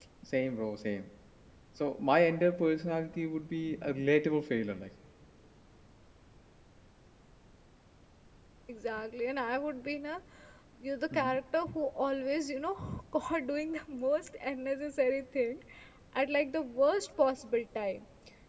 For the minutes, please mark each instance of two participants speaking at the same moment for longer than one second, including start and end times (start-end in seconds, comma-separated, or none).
none